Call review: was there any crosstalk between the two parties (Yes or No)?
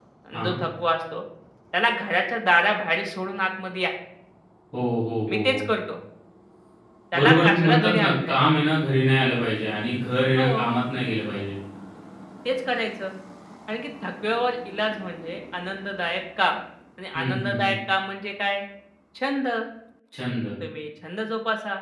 Yes